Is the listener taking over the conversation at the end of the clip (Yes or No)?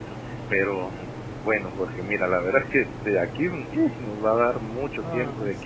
No